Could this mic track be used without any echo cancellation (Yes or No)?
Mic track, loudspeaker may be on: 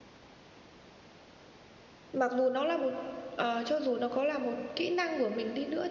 Yes